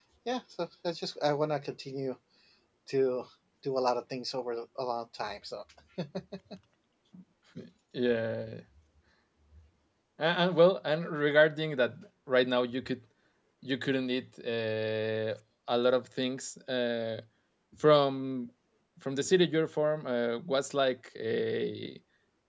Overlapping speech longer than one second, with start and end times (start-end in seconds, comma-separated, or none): none